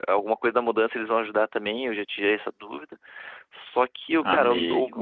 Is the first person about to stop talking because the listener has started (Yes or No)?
No